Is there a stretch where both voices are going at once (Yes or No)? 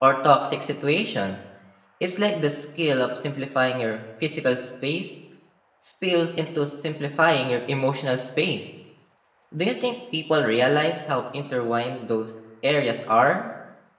No